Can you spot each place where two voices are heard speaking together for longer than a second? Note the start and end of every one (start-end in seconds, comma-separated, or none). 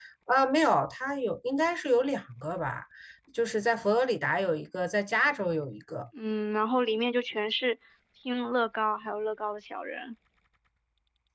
none